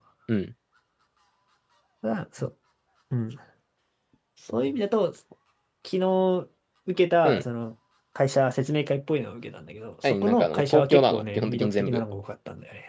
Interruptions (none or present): present